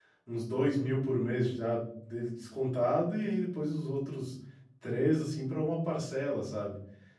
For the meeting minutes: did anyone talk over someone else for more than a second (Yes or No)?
No